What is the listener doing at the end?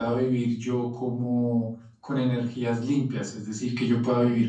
listening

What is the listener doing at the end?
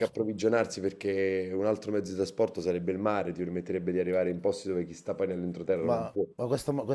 taking over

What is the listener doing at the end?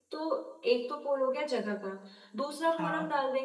listening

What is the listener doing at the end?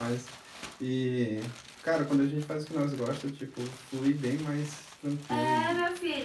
taking over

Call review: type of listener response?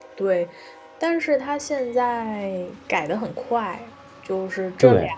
listening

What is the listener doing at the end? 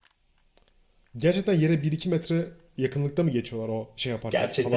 taking over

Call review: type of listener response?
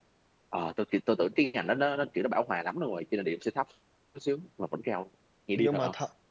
taking over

